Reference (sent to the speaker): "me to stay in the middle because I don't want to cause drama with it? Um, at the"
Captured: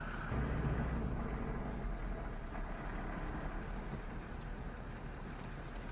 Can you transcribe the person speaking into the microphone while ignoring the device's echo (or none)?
none